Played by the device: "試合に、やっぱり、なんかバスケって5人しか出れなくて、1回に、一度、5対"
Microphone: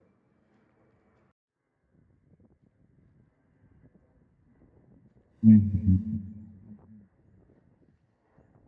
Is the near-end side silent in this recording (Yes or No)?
No